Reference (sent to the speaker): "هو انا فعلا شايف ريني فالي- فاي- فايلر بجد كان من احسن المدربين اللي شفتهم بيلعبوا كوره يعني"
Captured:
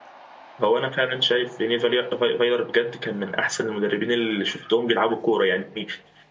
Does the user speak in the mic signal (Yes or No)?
No